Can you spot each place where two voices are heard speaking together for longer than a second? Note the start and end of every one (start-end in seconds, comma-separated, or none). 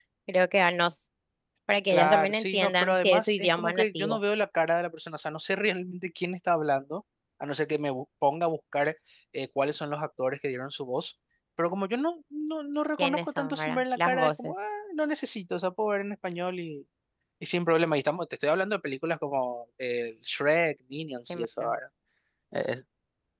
1.9-4.2, 13.0-14.5